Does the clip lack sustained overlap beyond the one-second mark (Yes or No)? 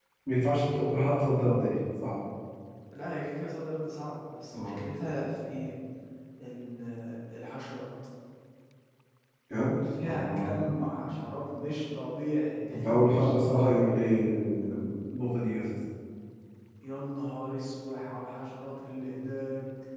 No